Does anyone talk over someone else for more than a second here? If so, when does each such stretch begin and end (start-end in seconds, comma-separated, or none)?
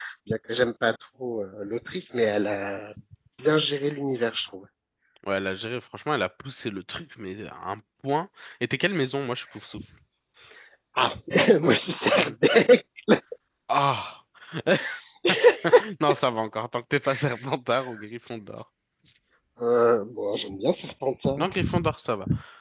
none